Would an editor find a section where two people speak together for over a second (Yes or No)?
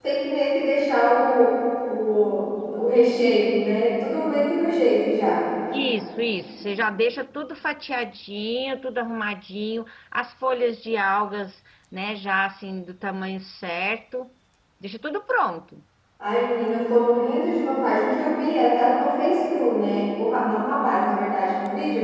No